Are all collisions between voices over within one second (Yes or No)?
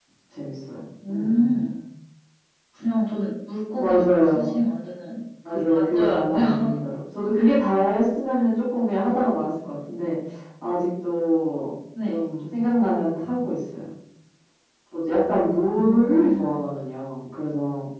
No